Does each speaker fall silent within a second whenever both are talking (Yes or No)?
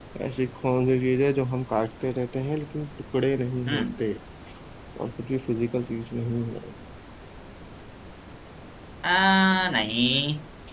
Yes